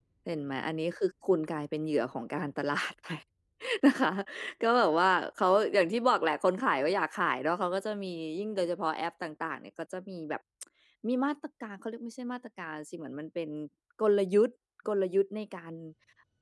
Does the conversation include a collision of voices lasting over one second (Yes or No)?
No